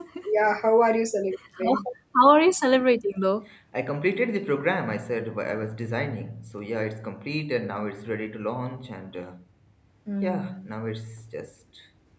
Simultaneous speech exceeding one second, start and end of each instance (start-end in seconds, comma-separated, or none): none